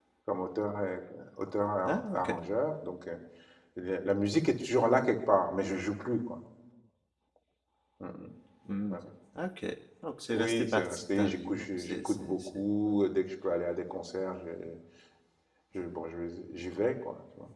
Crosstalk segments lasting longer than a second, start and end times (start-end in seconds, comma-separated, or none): 10.3-12.9